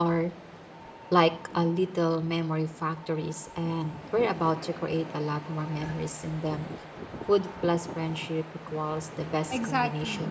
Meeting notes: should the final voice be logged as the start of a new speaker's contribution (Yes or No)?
Yes